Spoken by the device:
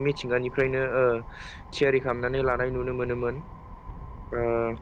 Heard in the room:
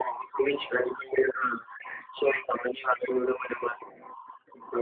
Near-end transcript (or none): none